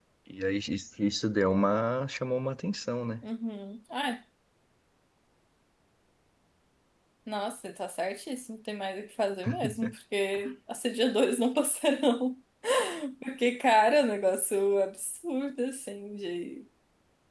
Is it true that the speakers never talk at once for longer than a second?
Yes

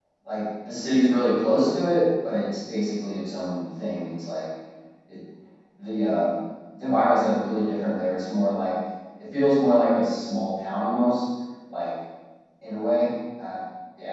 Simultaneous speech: No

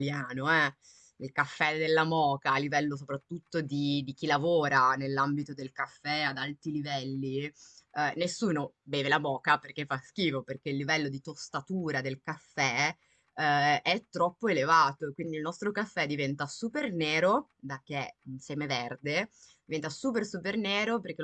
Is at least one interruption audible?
No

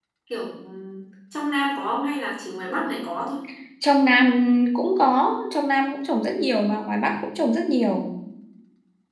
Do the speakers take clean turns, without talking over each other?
Yes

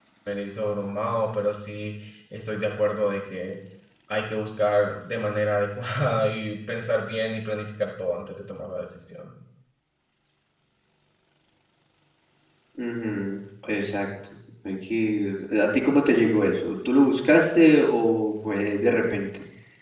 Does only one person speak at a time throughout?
Yes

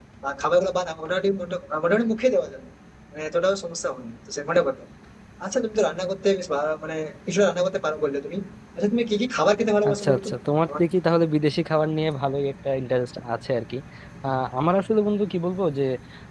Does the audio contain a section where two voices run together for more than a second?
No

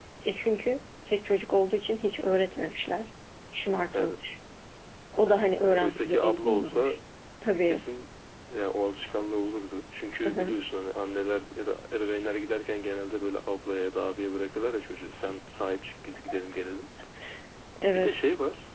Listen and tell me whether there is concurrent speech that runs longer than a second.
Yes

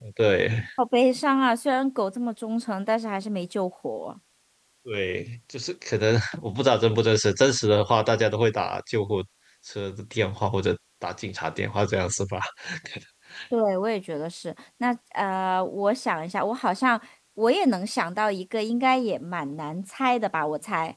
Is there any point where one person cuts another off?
No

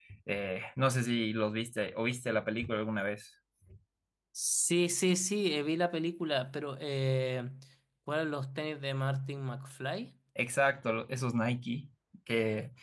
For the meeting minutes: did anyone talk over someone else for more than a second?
No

